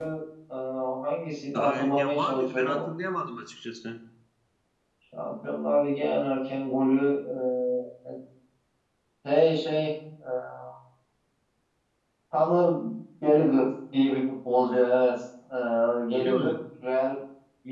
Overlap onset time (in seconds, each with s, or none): 1.5 s